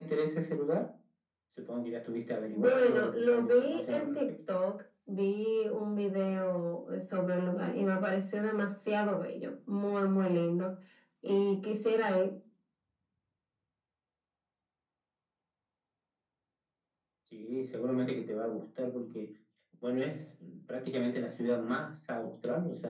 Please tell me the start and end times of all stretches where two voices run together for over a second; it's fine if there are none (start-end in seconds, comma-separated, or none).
2.5-4.3